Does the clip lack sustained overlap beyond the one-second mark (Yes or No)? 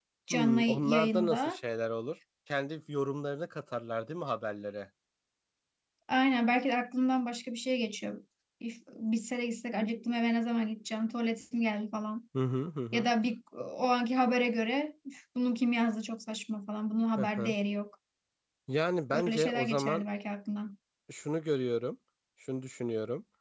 No